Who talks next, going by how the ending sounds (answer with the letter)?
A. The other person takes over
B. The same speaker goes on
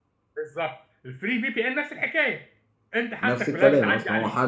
A